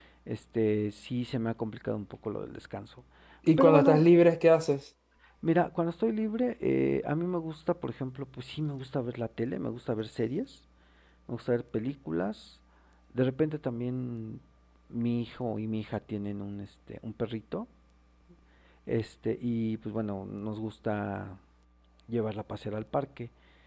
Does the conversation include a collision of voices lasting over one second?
No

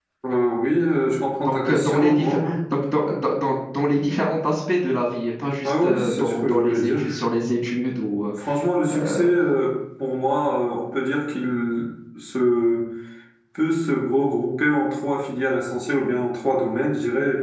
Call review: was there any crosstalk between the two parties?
Yes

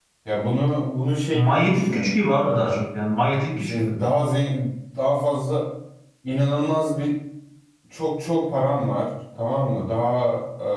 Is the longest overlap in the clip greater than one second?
Yes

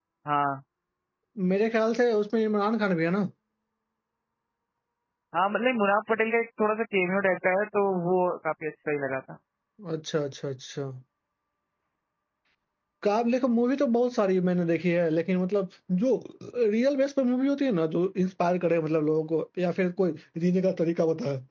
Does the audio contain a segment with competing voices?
No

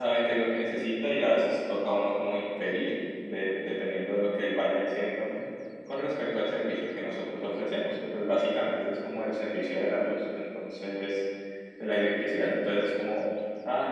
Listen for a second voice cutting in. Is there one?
No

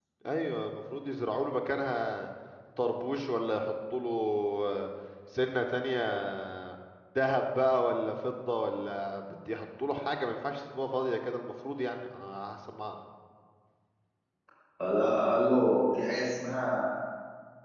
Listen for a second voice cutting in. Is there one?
No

